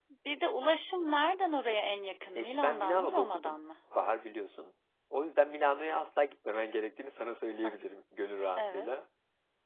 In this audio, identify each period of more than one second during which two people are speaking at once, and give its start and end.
2.4-3.6

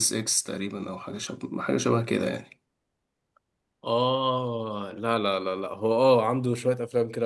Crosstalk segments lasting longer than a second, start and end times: none

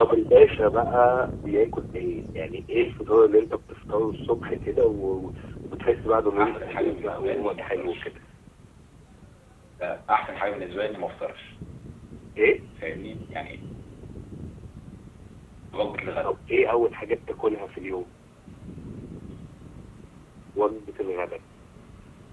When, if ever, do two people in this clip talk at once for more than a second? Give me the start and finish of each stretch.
6.4-8.0

